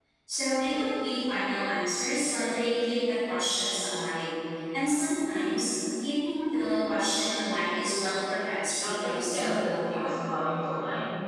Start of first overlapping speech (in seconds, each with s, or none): 8.8 s